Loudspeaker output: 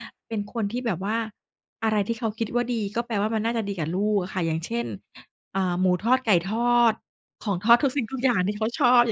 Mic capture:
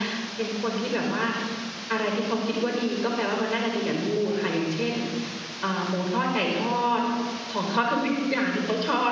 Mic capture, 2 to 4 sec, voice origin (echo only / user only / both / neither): echo only